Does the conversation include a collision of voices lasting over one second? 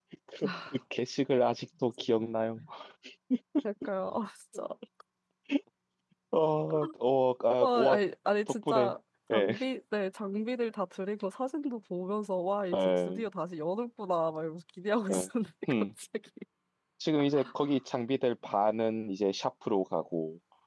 No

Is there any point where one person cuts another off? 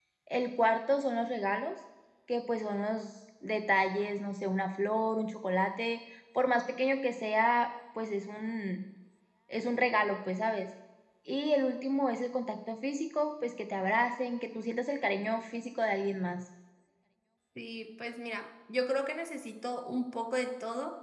No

